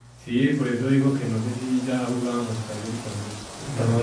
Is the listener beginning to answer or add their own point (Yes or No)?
Yes